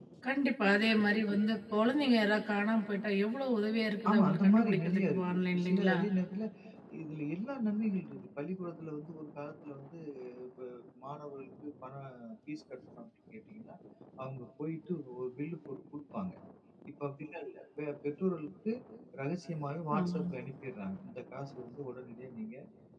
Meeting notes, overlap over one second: present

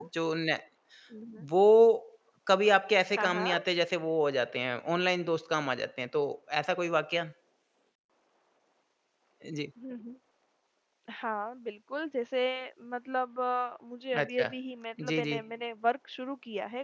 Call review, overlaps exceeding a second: none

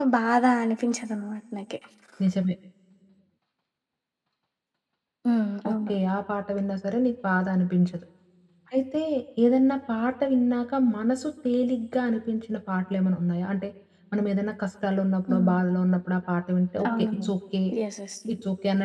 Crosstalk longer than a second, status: none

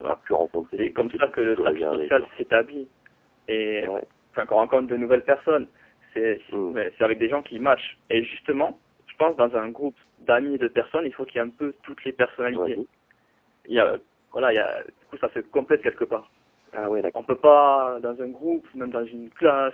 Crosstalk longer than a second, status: present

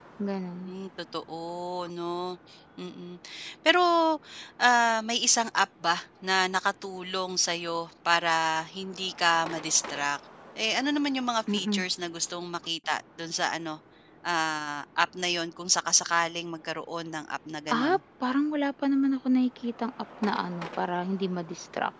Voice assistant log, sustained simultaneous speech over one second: none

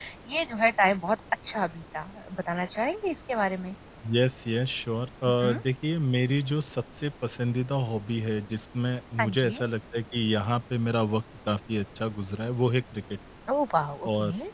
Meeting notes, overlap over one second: none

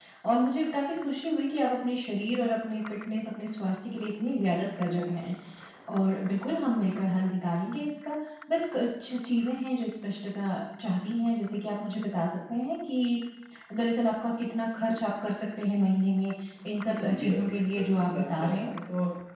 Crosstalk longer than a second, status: present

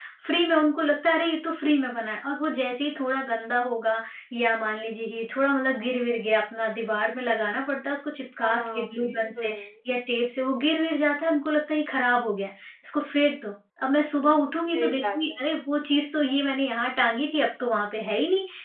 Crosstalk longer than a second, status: present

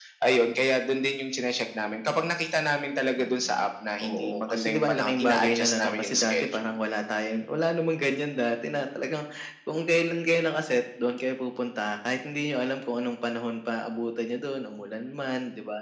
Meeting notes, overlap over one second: present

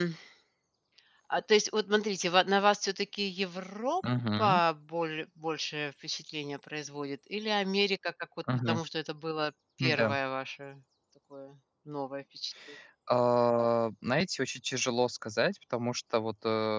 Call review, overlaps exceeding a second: none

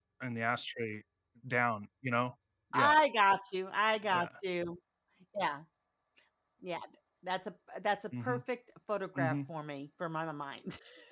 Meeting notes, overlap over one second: none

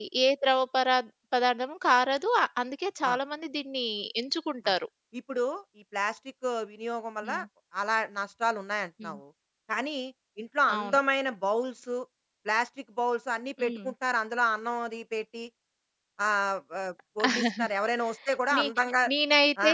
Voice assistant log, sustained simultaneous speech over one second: none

